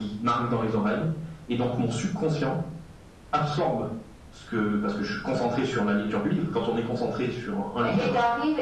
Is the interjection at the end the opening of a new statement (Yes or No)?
Yes